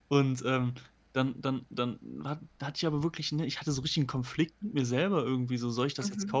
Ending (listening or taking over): listening